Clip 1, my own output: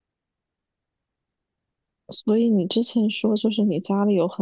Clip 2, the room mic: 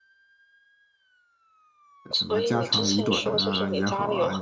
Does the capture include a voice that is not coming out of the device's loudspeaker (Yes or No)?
Yes